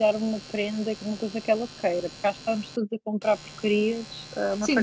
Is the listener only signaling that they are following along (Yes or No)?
No